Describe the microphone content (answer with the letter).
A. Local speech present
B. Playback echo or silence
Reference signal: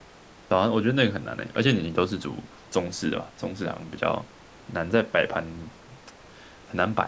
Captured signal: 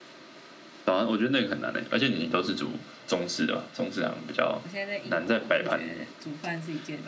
A